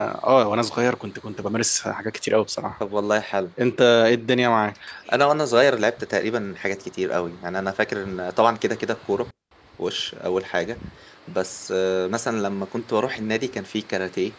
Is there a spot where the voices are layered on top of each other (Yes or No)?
No